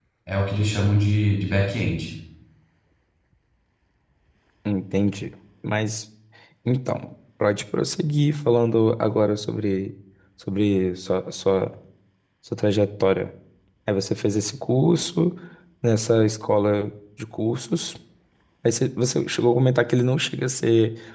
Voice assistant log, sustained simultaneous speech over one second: none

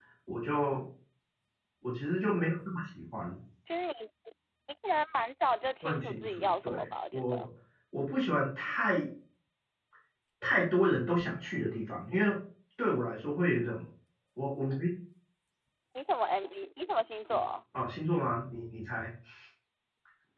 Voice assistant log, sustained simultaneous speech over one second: present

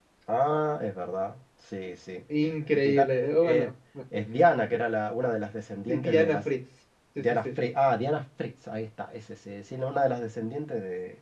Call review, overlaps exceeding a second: present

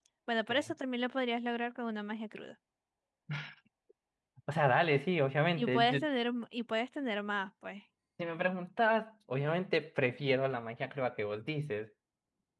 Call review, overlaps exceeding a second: none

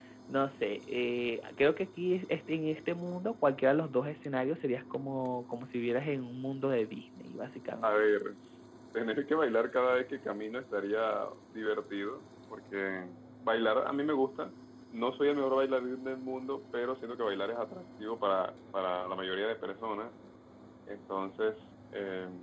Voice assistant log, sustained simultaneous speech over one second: none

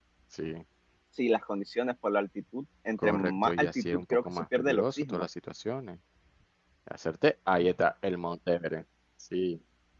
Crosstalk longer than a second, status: present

